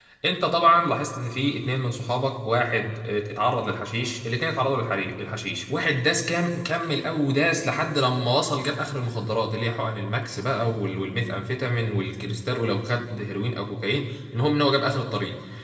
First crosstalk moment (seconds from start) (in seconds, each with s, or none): none